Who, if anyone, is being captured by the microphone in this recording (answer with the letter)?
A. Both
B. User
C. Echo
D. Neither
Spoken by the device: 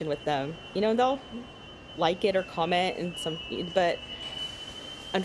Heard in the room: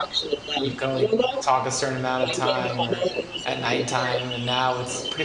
A